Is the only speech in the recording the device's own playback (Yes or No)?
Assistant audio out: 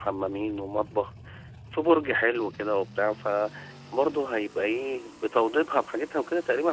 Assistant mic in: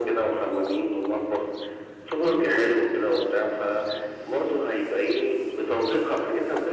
Yes